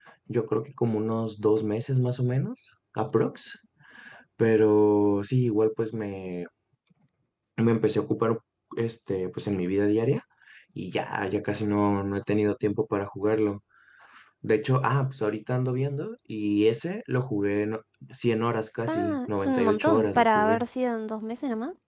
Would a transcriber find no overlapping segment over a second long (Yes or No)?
No